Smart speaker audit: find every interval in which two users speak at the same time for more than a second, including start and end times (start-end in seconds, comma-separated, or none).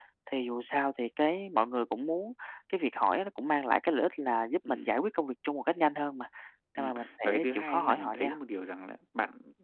6.8-8.3